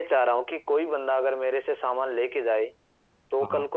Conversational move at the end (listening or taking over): listening